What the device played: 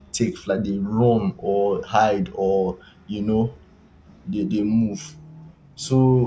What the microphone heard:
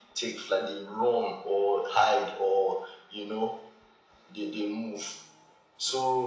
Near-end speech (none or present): none